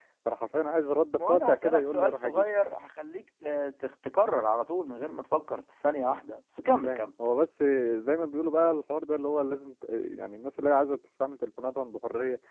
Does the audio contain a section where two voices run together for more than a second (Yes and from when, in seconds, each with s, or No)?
Yes, from 1.1 s